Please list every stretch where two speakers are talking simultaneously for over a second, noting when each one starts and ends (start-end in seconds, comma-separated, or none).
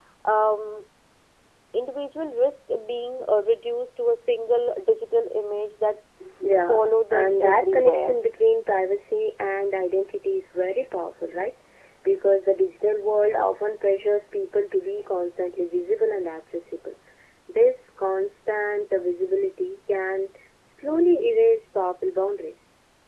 6.7-8.2